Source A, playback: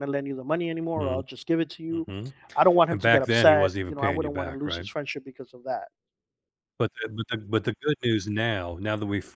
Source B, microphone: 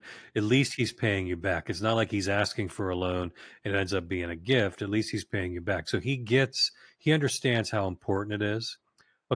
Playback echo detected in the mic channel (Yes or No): No